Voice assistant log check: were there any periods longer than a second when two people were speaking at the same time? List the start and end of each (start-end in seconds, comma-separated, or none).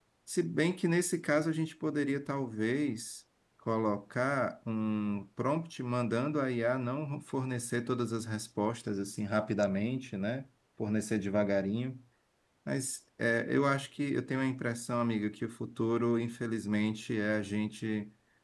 none